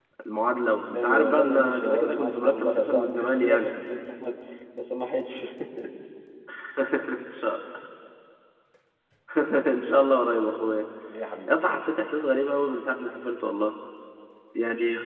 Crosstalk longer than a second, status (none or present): present